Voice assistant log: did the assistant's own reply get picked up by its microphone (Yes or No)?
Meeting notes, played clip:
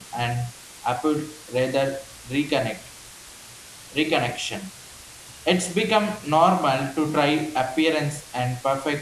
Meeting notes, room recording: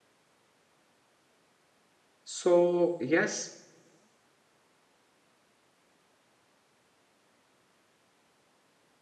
No